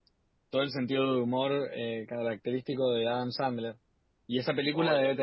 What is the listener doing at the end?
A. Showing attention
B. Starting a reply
A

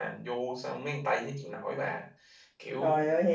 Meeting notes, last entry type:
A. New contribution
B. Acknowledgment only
A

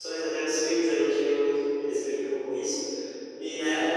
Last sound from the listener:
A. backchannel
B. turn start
A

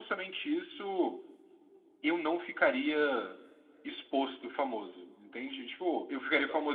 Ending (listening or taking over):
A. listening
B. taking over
A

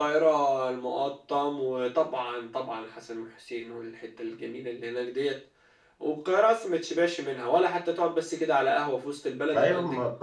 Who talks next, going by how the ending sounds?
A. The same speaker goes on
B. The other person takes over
B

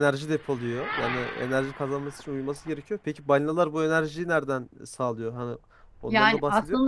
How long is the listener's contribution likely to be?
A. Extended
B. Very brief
A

